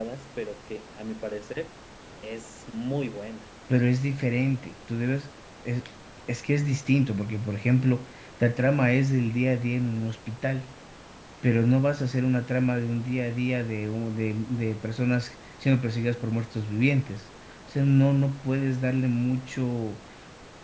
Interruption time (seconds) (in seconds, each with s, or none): none